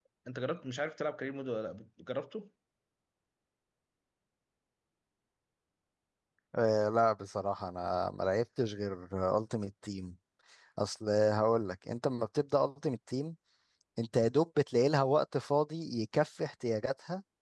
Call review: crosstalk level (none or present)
none